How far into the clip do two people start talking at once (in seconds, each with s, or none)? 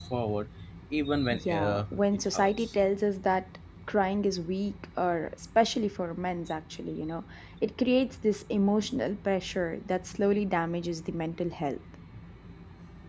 1.3 s